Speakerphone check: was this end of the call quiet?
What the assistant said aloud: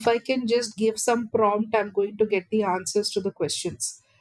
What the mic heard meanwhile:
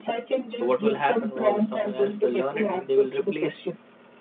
No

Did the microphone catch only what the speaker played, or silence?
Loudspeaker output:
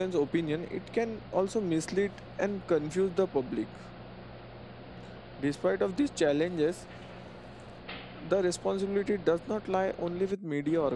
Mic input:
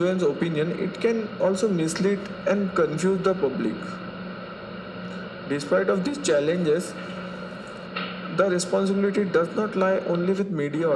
Yes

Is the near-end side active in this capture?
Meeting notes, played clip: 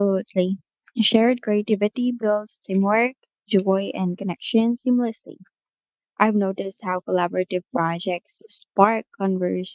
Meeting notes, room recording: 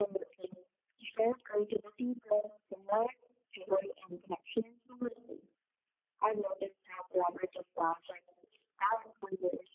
No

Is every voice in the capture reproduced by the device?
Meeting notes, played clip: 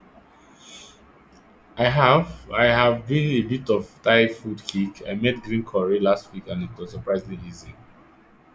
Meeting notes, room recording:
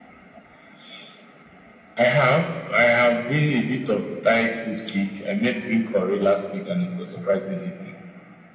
Yes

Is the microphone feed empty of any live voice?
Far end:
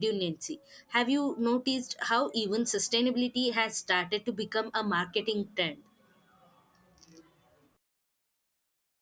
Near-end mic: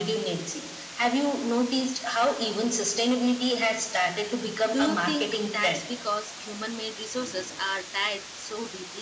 No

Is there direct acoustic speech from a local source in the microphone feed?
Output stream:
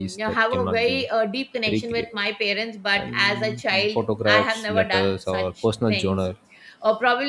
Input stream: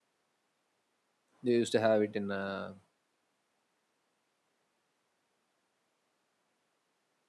Yes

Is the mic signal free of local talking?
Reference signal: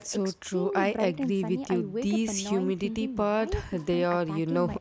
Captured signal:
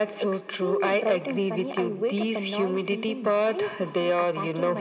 Yes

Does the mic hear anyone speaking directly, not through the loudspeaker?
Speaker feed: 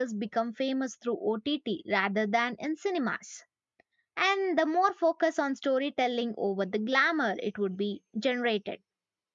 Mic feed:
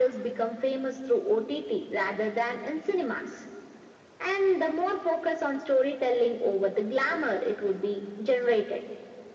No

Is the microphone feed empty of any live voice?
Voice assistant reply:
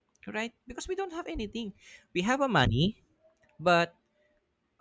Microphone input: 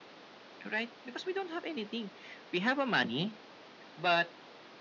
Yes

